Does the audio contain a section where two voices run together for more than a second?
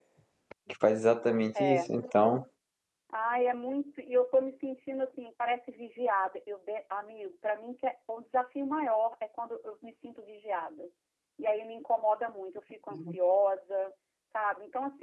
No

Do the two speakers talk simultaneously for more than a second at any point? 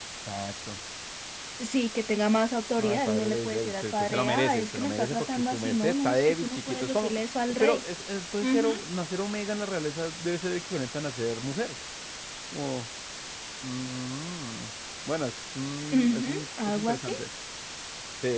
Yes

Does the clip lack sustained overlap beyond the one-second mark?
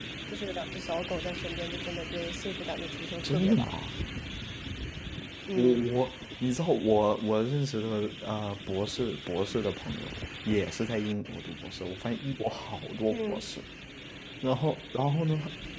Yes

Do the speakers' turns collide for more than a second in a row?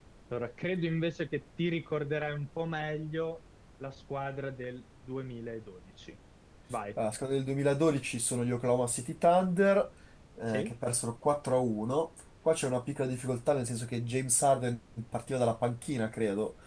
No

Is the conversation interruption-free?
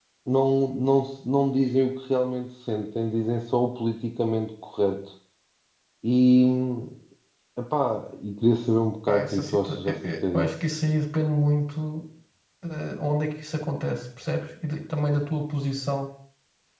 No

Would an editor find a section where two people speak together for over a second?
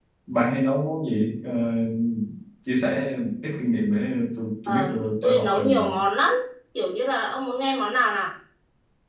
Yes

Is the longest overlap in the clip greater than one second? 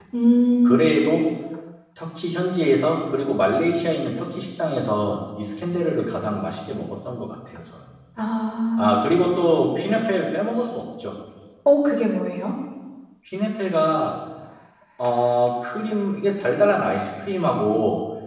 No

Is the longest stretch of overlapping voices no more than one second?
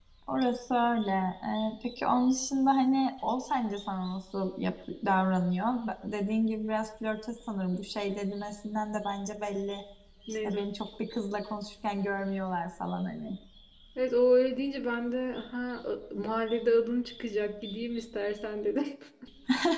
Yes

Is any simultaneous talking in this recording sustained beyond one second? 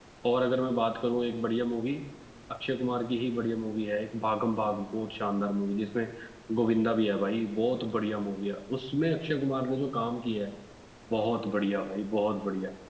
No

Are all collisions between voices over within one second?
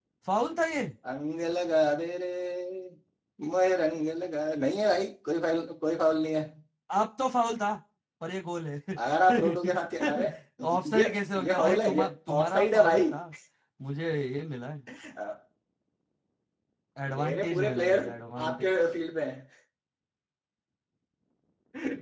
No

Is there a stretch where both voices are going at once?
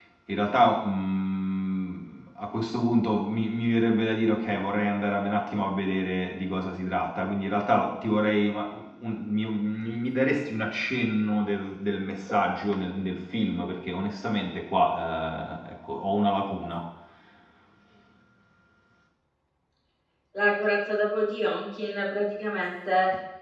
No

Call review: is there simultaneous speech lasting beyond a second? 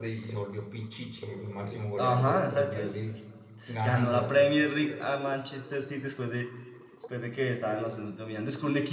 Yes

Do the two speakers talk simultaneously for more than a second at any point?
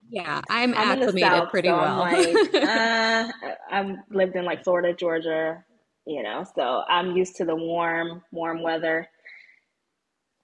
Yes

